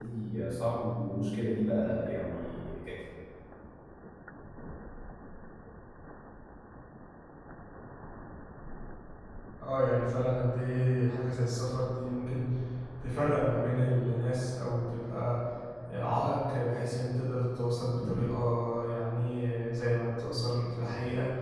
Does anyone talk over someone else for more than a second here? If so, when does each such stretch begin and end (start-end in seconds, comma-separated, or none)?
none